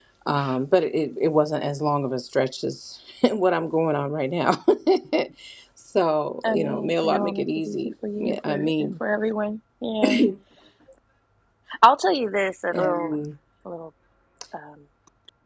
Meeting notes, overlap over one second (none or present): present